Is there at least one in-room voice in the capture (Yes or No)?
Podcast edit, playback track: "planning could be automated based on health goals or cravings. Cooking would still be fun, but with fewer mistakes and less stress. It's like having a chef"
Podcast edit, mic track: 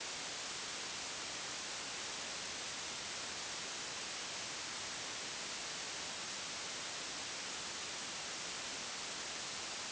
No